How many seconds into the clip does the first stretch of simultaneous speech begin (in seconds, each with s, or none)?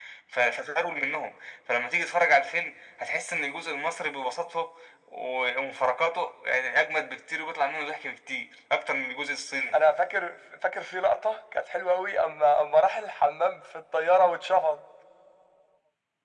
none